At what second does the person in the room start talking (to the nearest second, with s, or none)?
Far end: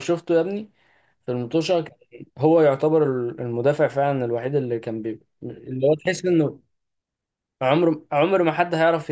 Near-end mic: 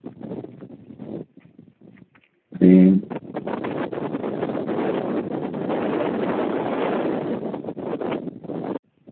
3 s